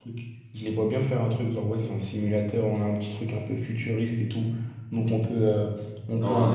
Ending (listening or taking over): taking over